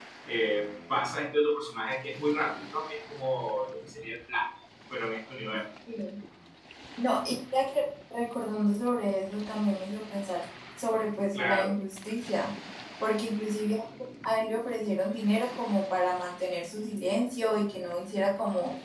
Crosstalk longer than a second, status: none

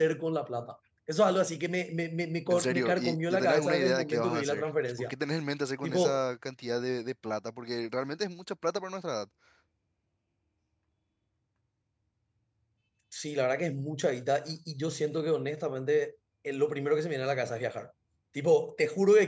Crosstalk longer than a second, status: present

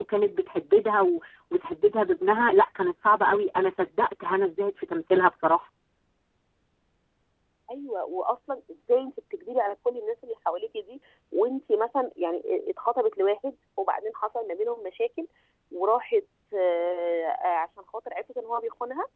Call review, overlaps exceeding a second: none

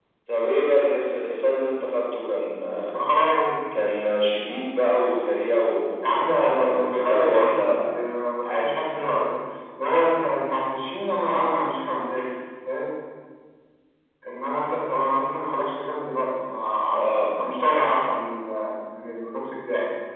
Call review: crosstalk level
present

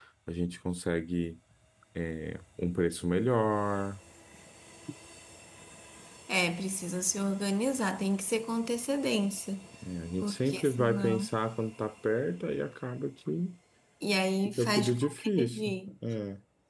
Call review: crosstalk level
present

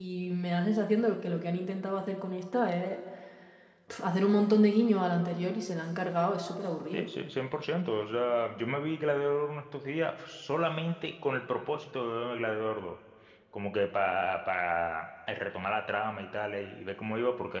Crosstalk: none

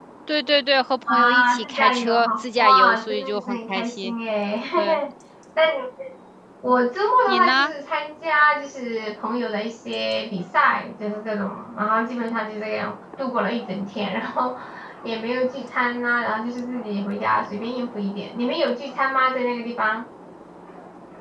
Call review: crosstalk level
present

